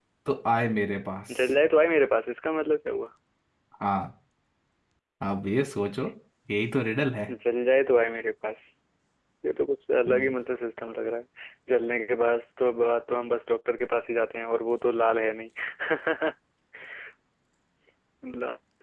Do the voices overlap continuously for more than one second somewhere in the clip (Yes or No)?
No